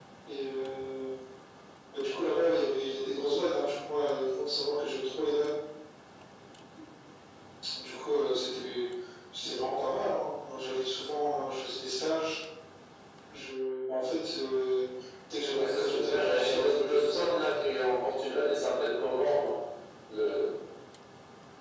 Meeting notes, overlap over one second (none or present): present